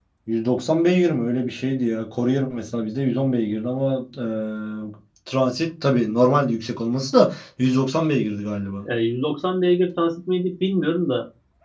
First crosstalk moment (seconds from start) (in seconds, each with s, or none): none